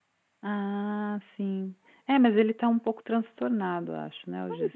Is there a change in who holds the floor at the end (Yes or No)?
Yes